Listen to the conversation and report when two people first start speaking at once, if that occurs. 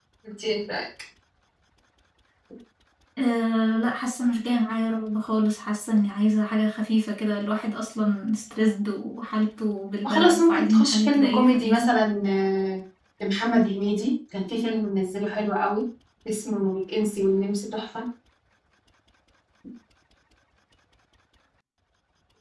10.0 s

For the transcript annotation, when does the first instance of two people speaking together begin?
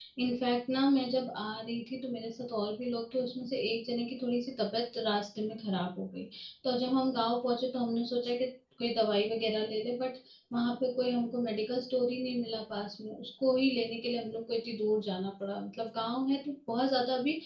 none

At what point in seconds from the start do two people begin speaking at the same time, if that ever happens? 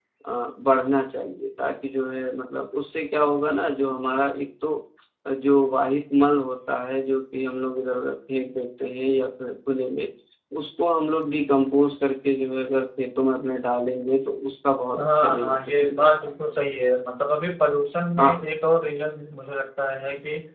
14.9 s

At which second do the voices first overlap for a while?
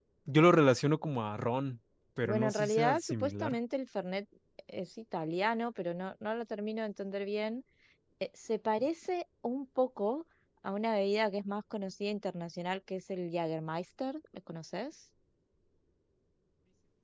2.2 s

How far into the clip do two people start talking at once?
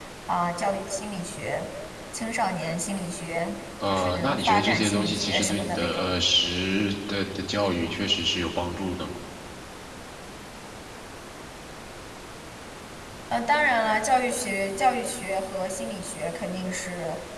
3.8 s

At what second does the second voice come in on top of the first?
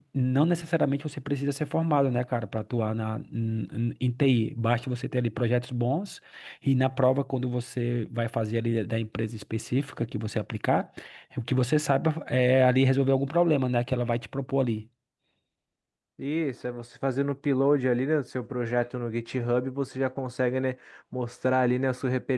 none

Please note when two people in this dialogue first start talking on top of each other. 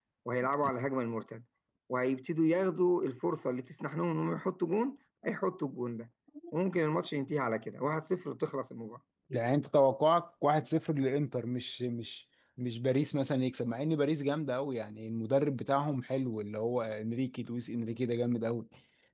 none

